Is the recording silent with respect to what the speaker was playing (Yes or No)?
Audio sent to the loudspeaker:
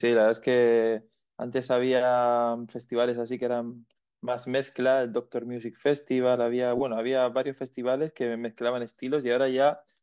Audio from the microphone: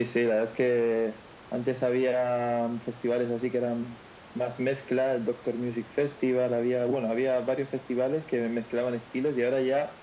No